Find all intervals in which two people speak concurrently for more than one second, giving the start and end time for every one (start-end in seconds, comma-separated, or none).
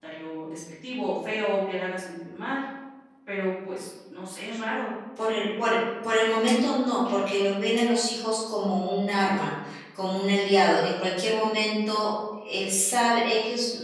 none